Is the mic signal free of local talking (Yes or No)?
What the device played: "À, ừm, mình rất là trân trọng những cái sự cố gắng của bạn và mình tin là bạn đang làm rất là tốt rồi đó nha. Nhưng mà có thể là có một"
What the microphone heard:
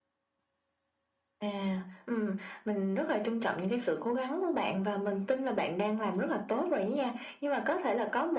Yes